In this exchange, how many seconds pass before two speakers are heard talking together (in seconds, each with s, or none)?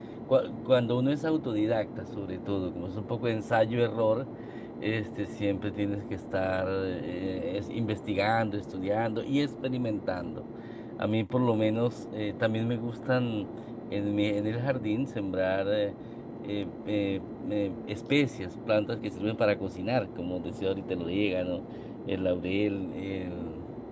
none